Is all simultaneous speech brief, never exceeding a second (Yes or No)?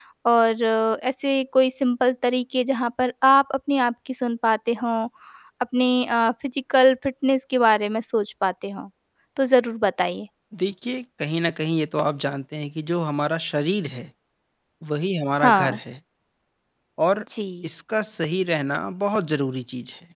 Yes